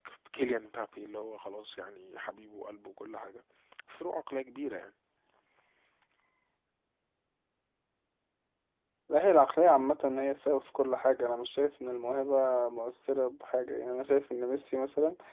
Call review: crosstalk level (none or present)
none